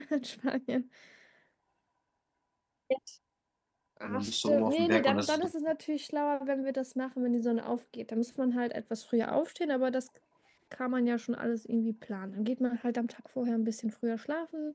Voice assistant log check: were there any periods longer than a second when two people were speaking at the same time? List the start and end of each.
4.0-5.5

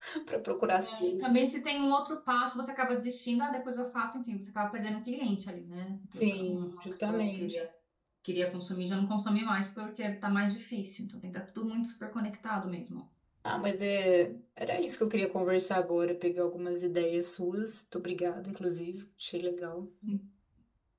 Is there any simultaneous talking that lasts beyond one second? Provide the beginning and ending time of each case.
6.2-7.5

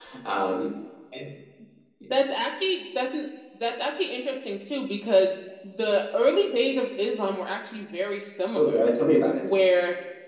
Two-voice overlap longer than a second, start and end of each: none

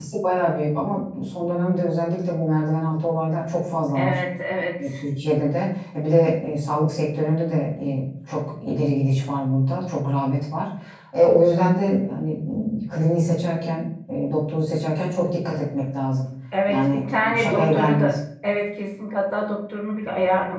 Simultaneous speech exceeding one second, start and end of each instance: 16.7-18.2

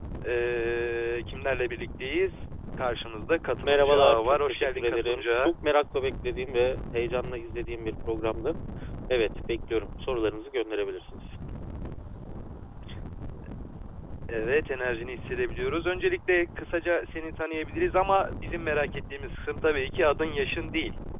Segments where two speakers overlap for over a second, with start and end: 3.6-5.5

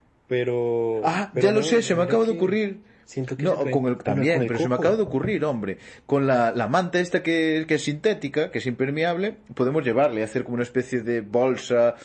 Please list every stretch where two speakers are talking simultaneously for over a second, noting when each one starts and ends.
1.0-2.5, 3.4-4.9

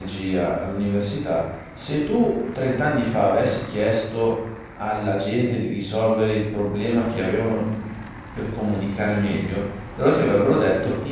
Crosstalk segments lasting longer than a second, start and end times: none

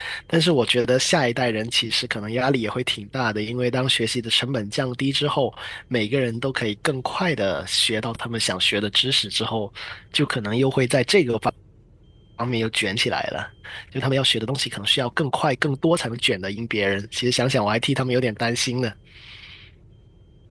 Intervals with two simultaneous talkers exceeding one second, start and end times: none

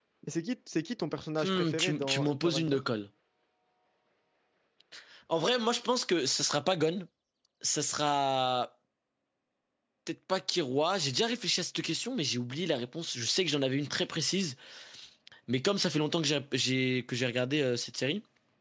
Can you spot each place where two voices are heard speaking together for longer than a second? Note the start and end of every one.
1.4-2.8

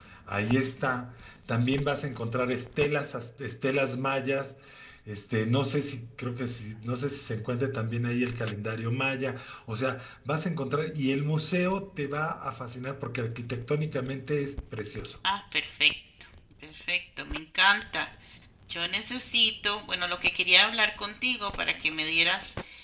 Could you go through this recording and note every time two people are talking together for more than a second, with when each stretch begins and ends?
none

